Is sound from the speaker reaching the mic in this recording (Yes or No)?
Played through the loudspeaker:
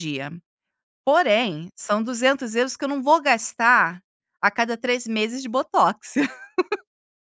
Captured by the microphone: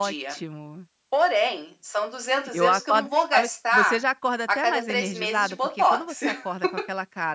Yes